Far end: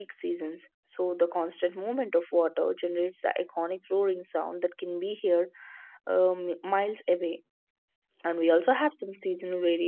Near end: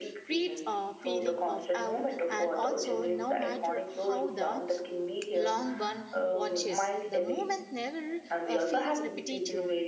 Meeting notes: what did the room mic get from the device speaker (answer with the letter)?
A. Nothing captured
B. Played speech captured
B